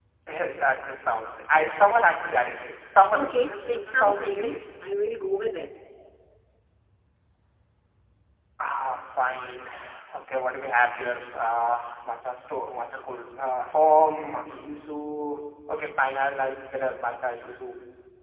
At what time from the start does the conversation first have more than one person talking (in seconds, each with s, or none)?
3.1 s